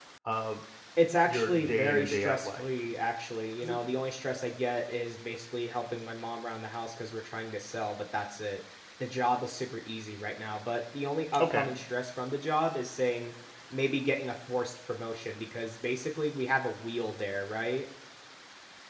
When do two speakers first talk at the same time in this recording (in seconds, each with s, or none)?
1.2 s